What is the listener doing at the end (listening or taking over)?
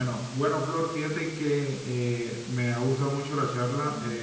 listening